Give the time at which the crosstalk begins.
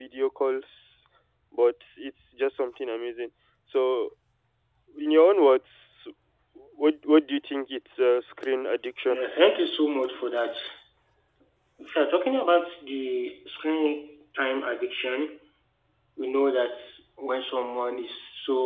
none

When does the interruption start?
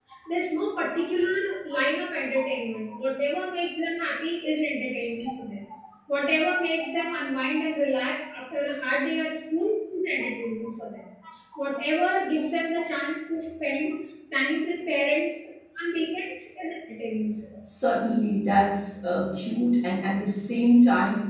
none

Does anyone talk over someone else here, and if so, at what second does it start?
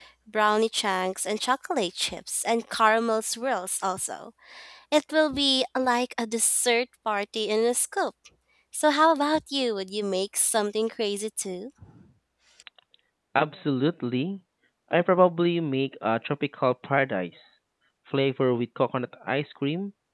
none

